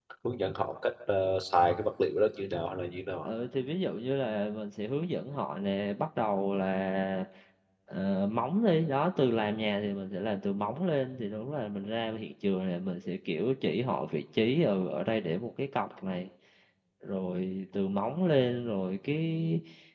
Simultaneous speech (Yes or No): No